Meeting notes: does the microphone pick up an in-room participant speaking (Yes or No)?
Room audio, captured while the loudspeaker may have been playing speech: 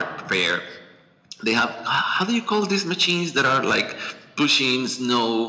No